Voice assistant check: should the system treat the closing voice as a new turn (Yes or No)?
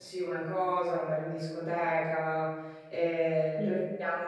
No